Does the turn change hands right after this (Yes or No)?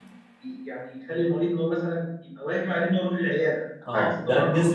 Yes